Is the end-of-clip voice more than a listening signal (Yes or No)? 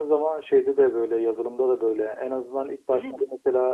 No